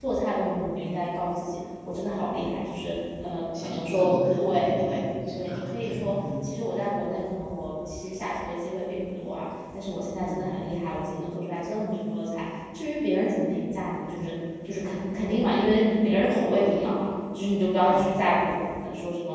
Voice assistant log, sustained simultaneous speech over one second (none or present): present